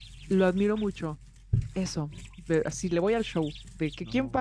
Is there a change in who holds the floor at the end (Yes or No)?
No